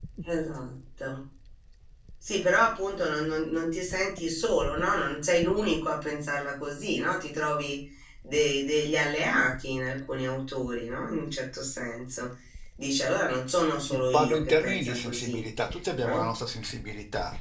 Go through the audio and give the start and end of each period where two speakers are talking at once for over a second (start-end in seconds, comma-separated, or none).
14.1-15.4